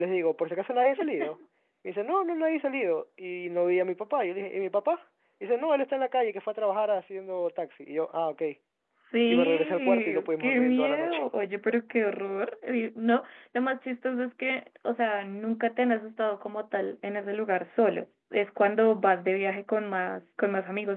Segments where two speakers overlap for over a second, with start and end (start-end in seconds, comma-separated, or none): 9.3-11.2